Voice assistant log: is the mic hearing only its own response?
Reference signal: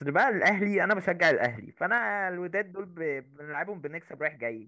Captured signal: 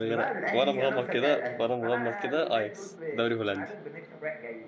No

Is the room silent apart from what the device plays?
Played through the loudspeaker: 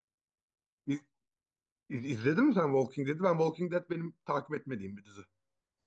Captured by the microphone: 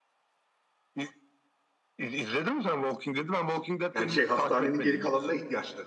No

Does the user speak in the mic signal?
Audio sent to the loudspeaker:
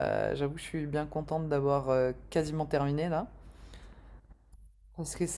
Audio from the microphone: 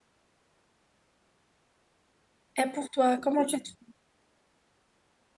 Yes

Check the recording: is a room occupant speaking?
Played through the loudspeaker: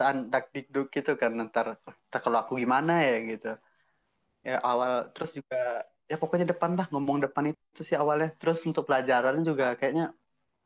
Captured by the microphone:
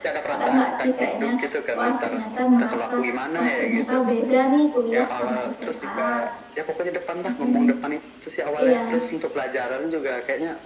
Yes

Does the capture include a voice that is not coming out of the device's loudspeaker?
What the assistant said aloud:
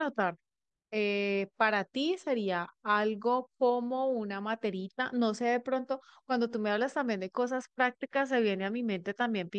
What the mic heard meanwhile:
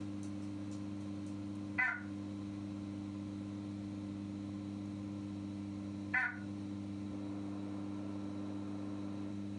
No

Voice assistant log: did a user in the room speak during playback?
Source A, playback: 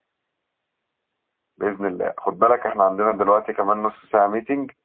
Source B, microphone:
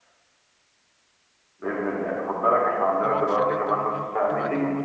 Yes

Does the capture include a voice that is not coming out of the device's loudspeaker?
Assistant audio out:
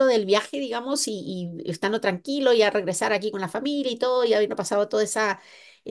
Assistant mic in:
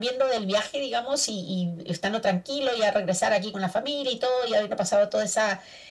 No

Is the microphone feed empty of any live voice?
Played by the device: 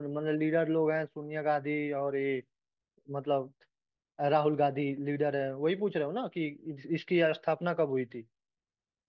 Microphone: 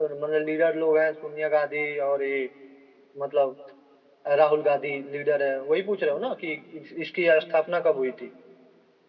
Yes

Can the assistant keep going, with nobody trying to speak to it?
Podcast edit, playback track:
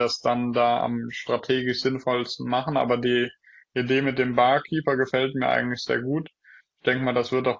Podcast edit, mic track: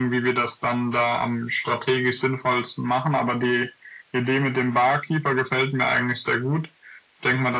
Yes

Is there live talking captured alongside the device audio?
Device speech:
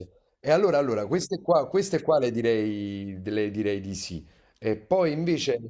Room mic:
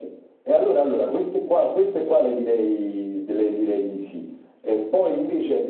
No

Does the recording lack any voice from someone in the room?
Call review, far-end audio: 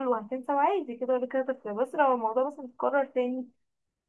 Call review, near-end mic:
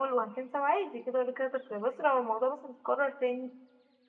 Yes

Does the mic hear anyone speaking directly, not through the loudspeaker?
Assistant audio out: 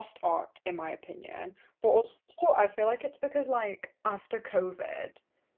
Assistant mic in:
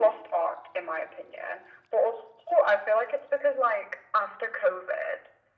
No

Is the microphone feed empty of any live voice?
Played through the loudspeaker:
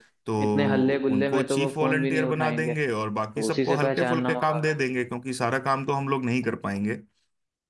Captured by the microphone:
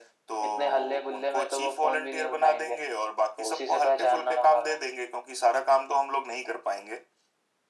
Yes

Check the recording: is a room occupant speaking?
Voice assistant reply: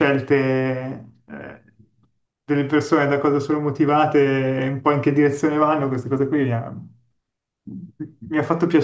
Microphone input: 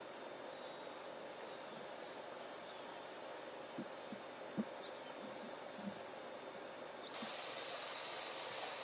No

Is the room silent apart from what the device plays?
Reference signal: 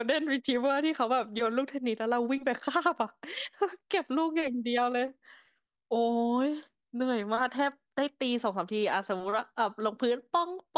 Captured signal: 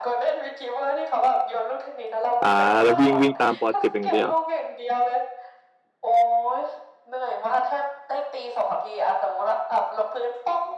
No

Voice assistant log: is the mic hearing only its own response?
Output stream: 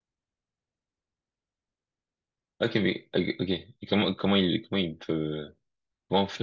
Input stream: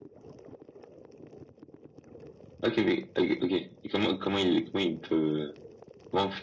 Yes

